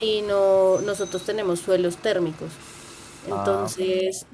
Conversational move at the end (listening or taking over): listening